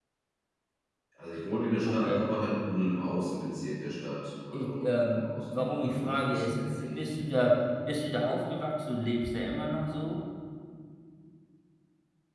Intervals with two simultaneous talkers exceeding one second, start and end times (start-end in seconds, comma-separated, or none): 4.5-7.0